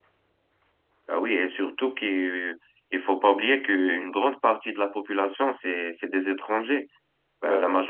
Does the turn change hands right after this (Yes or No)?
No